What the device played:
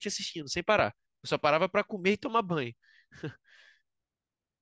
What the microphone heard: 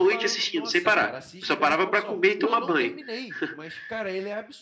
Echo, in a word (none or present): present